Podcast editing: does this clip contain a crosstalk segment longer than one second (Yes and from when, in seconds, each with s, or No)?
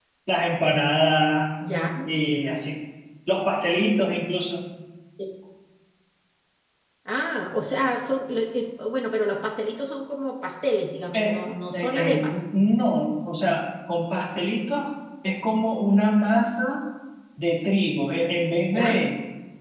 Yes, from 11.1 s